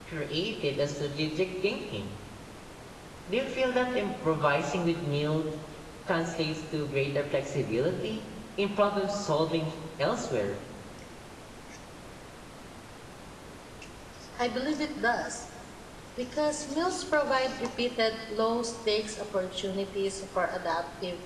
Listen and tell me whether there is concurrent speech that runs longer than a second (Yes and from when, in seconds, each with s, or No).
No